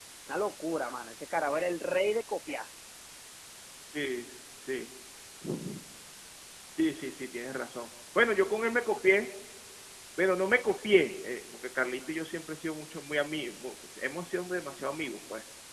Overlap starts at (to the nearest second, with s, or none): none